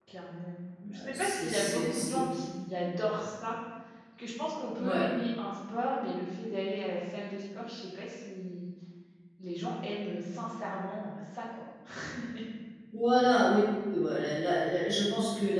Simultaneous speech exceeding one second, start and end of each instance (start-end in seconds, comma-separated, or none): 0.9-2.2